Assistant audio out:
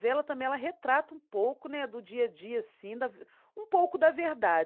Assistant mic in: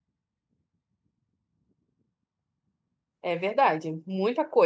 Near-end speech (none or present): present